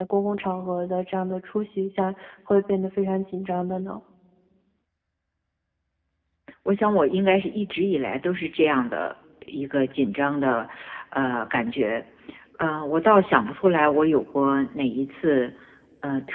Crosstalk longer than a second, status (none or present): none